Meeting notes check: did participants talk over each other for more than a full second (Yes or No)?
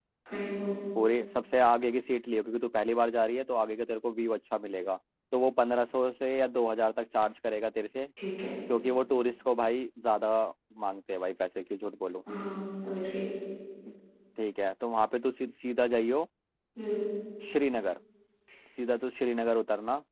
No